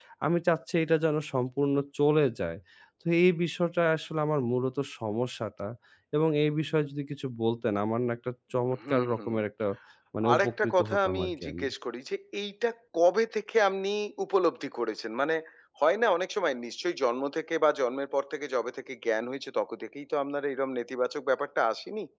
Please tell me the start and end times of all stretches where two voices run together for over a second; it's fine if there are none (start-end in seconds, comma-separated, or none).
10.3-11.7